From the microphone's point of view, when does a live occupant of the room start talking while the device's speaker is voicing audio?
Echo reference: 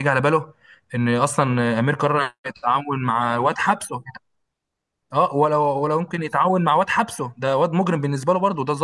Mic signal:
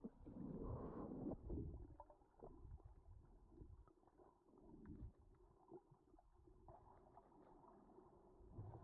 none

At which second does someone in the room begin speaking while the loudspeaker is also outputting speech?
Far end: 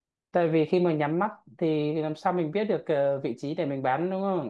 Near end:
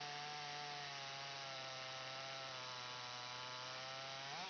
none

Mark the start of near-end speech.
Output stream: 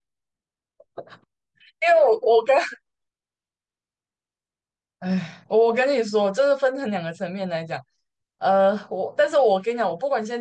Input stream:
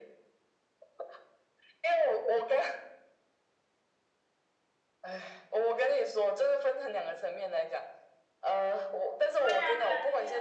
9.3 s

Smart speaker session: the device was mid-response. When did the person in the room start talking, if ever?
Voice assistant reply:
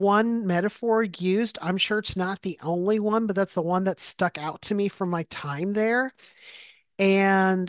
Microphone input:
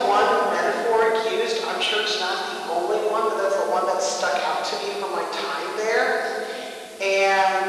none

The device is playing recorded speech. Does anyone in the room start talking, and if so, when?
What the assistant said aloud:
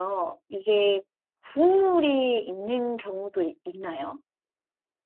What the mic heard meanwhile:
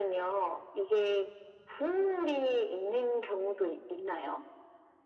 none

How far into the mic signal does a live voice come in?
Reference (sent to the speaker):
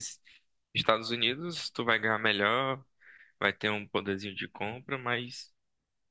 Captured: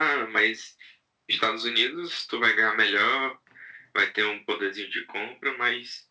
none

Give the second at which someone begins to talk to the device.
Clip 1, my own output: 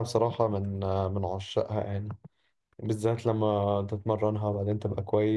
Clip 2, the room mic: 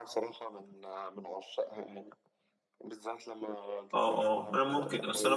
3.9 s

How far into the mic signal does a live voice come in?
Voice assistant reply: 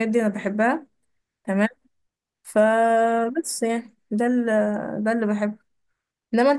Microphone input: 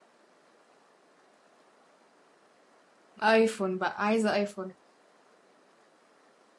3.2 s

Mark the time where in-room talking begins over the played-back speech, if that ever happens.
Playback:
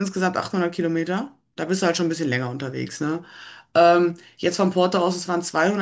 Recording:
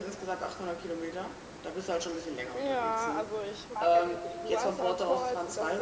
2.5 s

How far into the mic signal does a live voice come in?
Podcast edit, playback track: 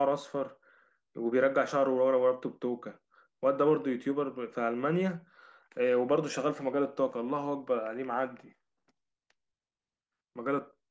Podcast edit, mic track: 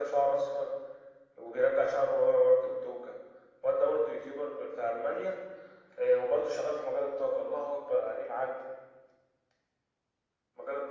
none

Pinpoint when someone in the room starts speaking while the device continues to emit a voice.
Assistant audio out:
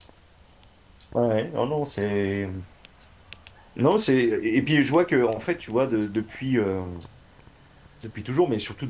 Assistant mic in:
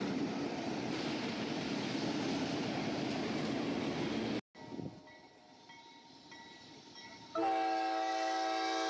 none

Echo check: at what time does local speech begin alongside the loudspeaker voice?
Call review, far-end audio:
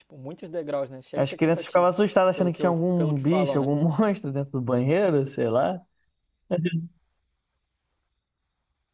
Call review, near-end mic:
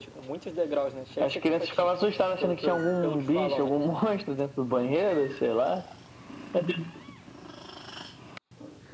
none

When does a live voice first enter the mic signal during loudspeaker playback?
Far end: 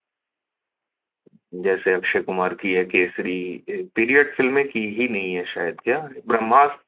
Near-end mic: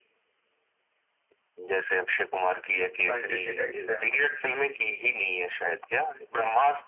3.1 s

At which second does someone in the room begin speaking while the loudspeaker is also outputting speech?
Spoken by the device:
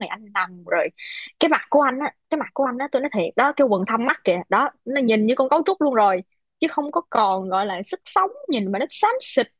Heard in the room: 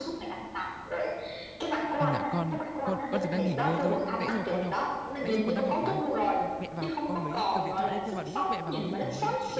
2.0 s

